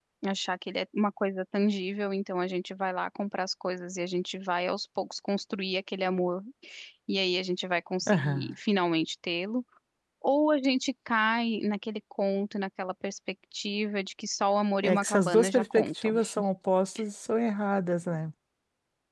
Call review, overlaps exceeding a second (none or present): present